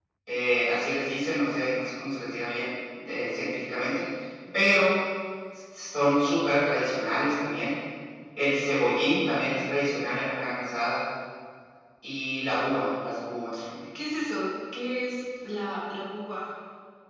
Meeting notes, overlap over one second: none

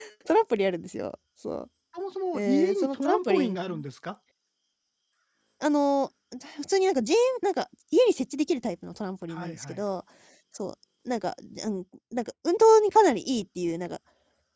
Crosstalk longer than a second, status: present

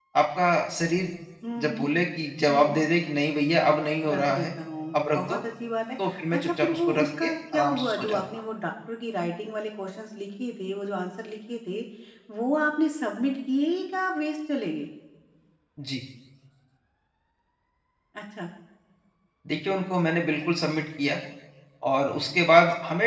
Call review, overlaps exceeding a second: present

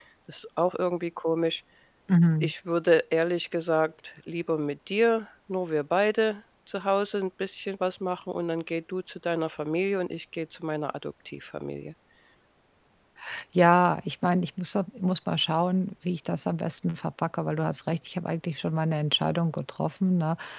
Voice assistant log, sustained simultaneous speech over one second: none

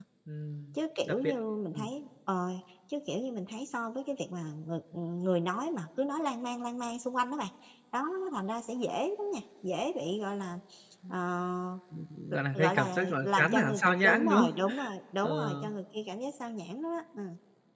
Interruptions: present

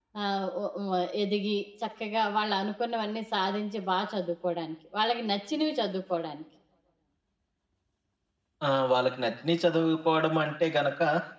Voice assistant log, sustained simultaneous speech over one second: none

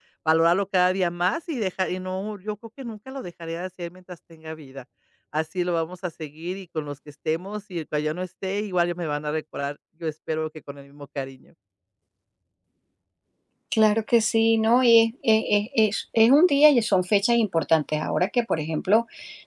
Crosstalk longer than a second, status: none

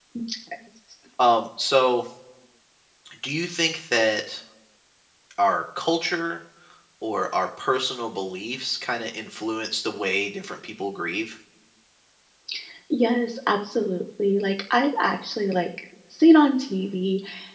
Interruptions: none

